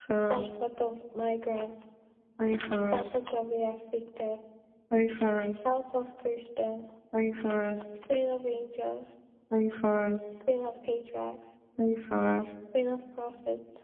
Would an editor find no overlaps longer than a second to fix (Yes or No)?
Yes